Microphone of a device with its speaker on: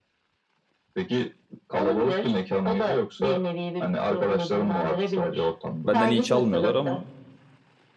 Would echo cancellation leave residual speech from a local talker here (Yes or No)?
Yes